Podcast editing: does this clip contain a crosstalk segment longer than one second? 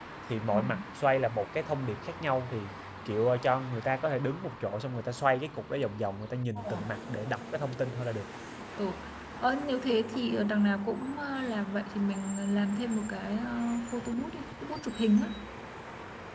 No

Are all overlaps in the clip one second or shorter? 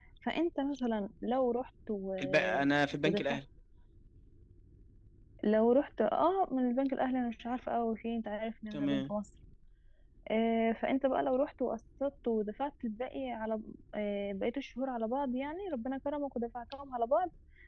Yes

